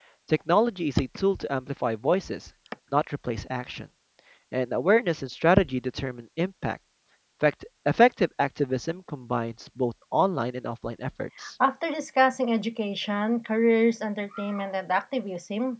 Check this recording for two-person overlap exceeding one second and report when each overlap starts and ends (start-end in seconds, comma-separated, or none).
none